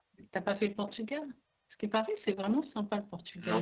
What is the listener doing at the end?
taking over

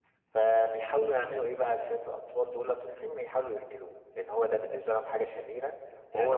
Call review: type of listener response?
taking over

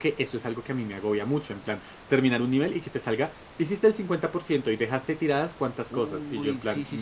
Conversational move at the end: taking over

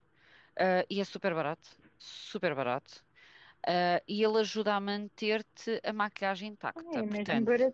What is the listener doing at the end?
taking over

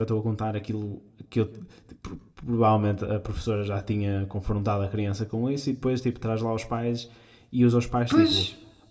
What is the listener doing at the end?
listening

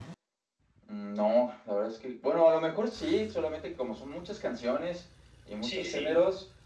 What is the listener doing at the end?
listening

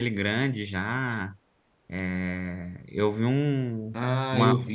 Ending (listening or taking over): taking over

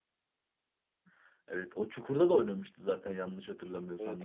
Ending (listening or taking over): taking over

